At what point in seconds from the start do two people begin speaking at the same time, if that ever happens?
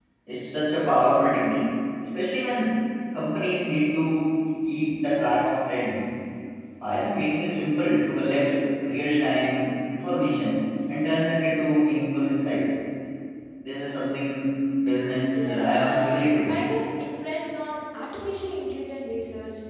15 s

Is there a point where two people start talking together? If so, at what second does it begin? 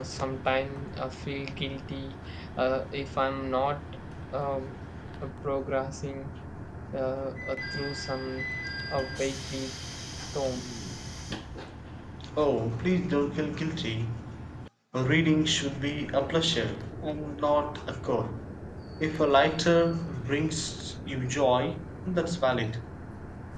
none

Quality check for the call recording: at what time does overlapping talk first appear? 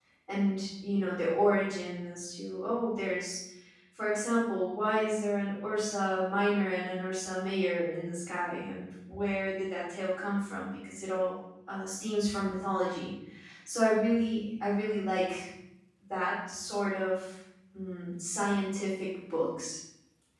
none

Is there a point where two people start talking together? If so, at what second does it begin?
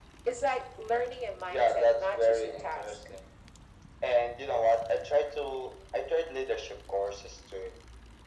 1 s

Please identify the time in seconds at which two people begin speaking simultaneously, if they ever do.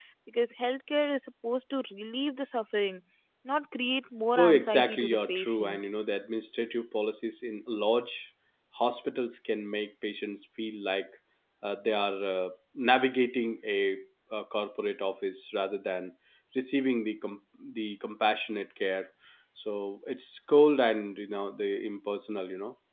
4 s

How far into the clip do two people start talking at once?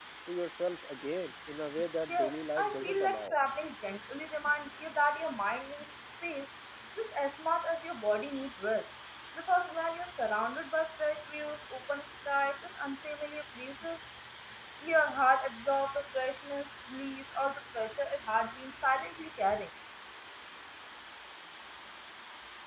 2 s

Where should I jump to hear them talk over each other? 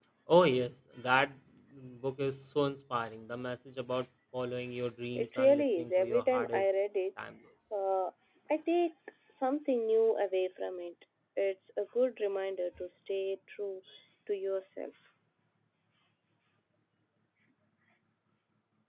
5 s

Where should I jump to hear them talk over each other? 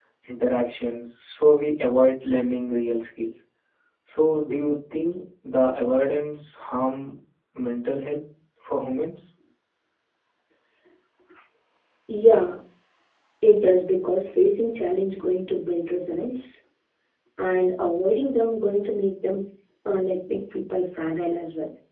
none

